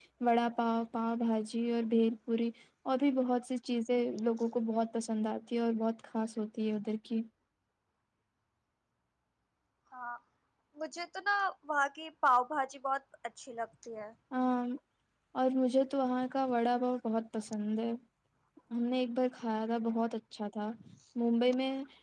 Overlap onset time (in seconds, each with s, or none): none